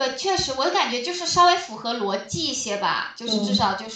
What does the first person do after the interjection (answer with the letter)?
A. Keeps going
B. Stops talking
A